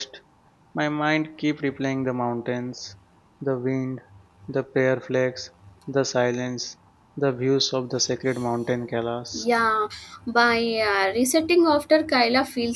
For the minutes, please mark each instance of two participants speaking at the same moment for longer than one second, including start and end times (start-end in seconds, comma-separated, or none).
none